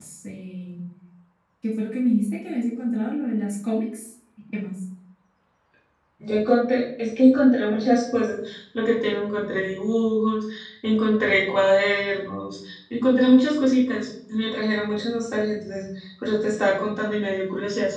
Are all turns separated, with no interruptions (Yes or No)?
Yes